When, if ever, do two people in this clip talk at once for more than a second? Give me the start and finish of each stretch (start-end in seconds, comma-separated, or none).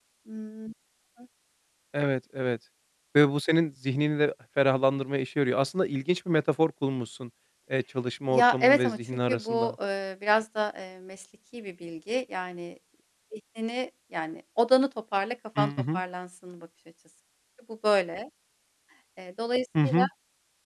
8.3-9.7